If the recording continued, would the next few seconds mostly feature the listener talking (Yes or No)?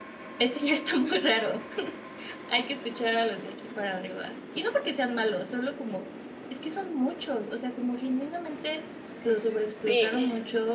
No